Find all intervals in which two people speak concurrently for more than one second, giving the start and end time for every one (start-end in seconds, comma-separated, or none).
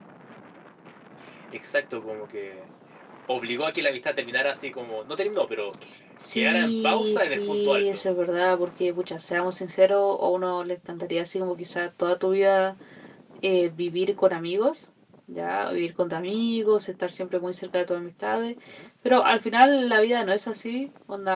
6.3-8.1